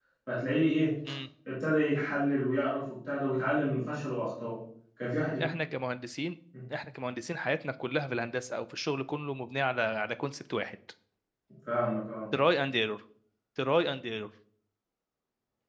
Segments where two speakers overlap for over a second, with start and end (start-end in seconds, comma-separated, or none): none